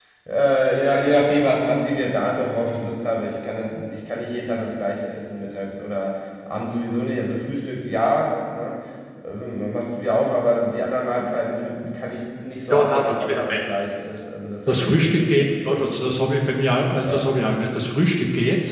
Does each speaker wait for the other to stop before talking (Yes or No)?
No